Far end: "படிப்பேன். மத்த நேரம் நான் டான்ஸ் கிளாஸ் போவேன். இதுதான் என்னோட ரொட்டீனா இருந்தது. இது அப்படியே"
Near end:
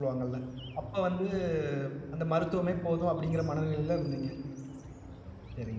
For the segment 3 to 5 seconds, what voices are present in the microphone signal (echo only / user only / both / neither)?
user only